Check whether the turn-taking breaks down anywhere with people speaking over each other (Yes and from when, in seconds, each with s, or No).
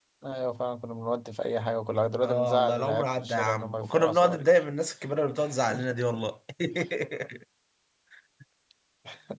Yes, from 2.2 s